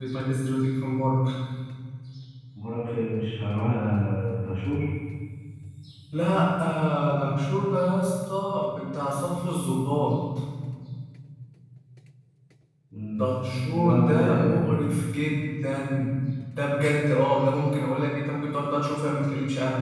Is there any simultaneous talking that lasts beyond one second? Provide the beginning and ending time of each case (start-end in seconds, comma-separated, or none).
13.7-14.9